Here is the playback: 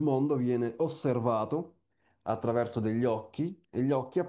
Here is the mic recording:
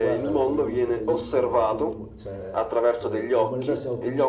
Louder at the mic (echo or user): echo